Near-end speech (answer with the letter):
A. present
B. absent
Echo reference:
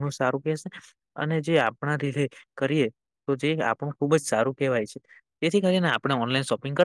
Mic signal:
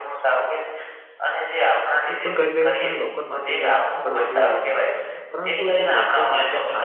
A